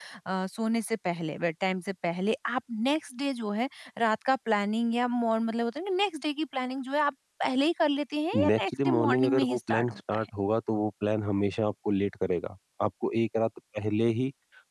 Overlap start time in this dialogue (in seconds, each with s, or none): 8.3 s